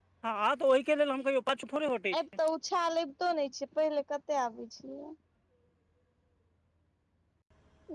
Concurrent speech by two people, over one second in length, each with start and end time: none

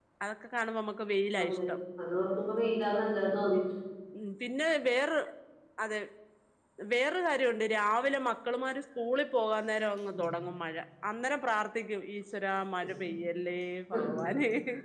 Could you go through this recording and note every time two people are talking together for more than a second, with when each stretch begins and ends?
none

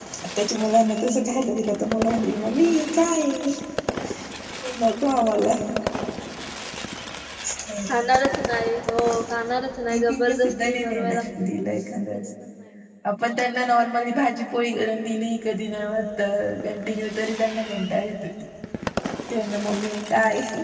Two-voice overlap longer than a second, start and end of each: 9.9-11.2

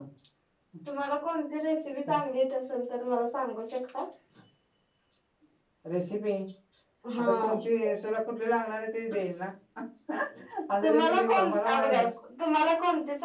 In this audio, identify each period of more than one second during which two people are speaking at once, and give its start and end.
10.8-12.0

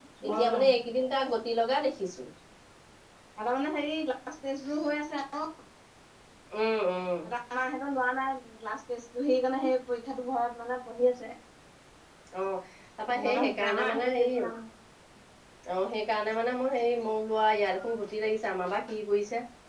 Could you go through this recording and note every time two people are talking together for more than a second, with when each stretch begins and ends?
13.1-14.5

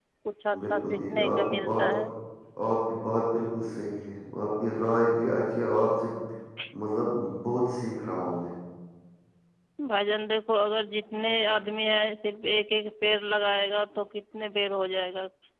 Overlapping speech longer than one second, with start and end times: 0.6-1.8

